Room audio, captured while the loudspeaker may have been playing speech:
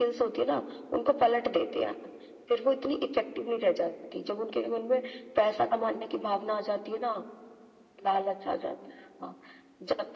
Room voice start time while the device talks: none

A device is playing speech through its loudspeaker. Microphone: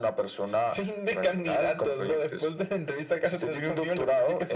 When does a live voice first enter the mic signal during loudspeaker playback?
none

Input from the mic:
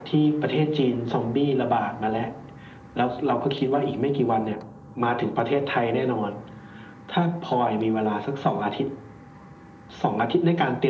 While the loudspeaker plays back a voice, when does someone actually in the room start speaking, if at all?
none

